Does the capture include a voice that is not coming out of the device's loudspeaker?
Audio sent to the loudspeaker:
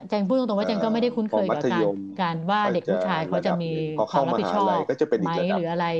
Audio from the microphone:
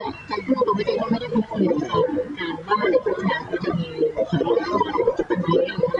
No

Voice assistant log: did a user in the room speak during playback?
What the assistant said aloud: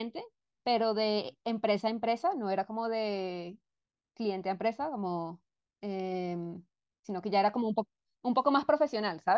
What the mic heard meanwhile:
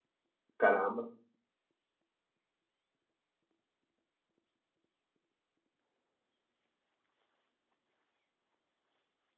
Yes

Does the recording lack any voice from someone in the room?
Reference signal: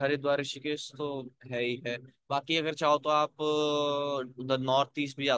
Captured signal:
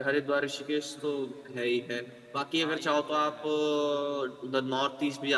No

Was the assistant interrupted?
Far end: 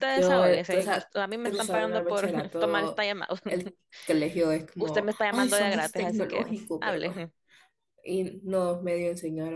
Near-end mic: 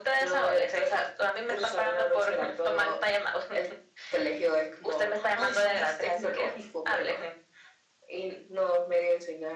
No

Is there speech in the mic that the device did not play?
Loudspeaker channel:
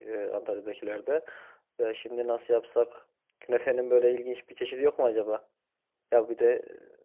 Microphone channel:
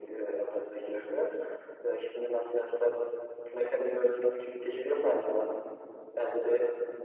No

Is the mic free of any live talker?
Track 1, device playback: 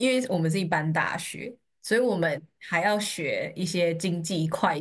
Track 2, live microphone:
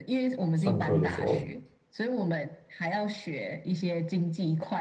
No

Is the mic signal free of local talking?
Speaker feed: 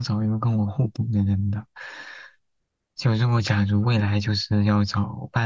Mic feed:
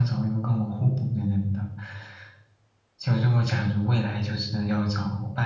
Yes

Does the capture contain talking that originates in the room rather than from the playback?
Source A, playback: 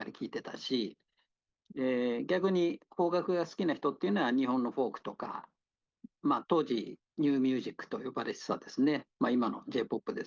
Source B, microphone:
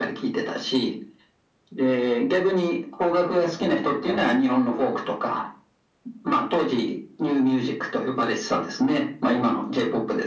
No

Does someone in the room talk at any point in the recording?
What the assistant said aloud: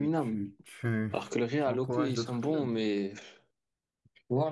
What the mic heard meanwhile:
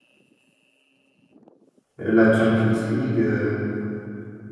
Yes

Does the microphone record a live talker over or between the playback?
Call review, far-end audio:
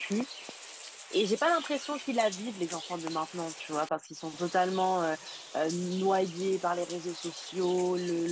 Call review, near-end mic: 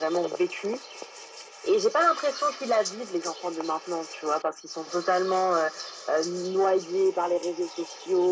No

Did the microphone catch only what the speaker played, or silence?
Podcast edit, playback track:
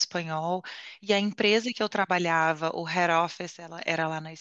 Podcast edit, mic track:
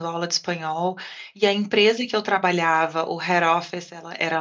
Yes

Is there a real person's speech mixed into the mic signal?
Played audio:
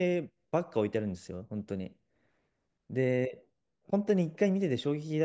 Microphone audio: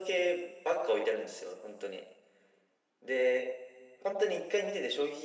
No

